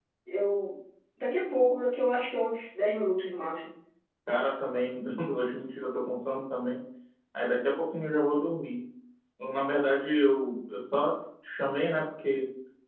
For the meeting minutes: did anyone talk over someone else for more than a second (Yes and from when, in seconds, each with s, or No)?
No